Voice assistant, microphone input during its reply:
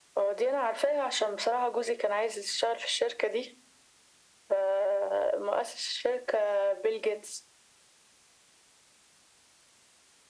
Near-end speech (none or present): none